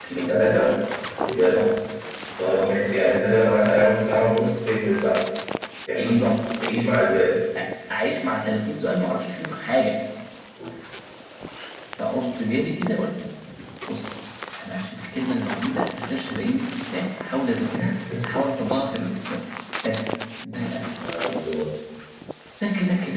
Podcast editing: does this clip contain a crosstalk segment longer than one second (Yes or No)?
No